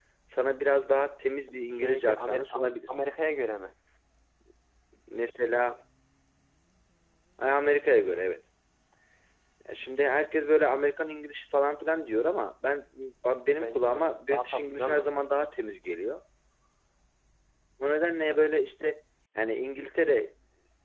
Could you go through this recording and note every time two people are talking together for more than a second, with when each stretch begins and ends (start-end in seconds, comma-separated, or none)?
1.5-2.9, 13.5-15.1